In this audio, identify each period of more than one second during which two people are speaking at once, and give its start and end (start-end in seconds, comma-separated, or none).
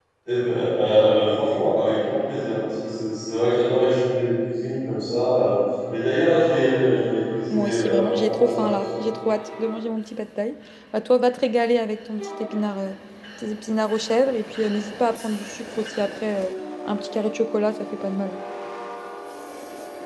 7.5-8.9